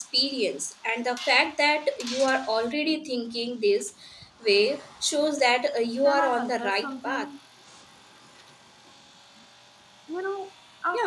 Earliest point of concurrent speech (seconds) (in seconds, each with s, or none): 6.0 s